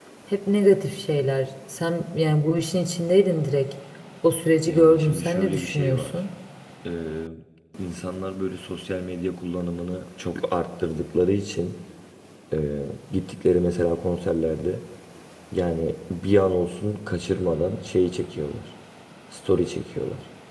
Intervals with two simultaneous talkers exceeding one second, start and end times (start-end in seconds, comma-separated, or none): 4.7-6.2